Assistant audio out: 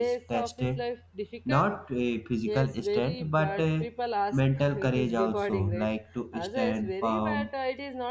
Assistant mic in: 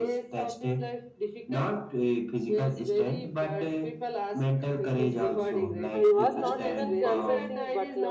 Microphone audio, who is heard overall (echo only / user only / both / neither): both